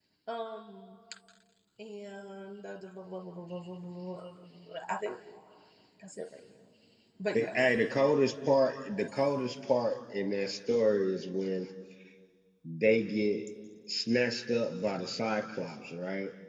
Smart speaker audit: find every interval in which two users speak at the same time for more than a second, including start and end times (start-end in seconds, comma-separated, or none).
none